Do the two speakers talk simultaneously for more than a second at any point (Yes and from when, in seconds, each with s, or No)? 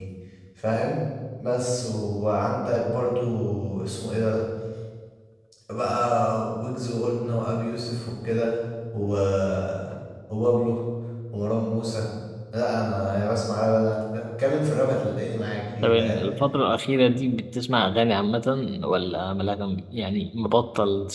No